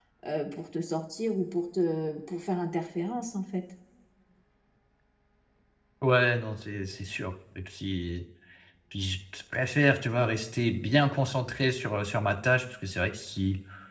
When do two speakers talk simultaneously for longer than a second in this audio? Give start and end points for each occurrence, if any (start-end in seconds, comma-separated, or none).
none